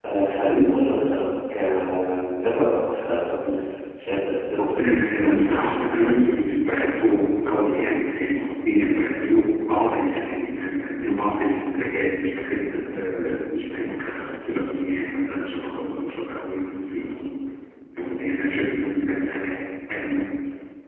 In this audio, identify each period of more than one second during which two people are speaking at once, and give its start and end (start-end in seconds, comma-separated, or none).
4.8-6.1